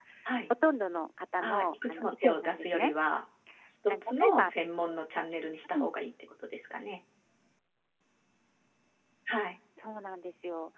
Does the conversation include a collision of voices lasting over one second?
Yes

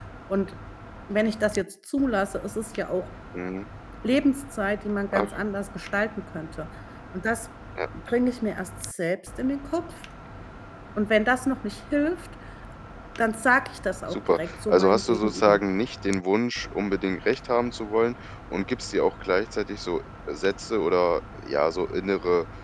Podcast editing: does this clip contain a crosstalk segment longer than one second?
Yes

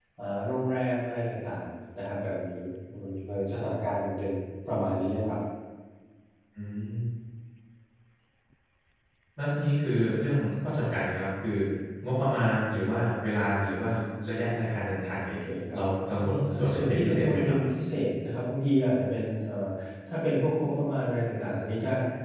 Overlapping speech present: Yes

